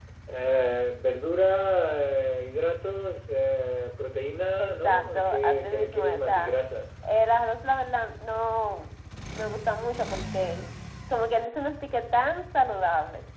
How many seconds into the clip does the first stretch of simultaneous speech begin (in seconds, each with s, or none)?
4.6 s